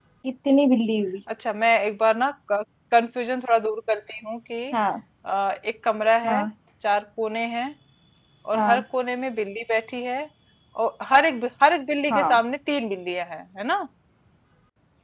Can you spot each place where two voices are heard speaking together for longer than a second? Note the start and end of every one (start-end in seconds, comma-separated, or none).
none